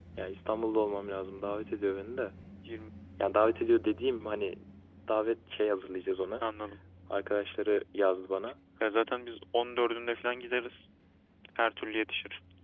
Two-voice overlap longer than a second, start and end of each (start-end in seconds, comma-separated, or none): none